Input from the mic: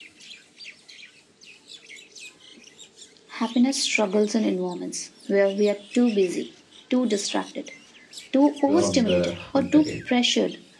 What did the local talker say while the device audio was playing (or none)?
you're on the hunt again.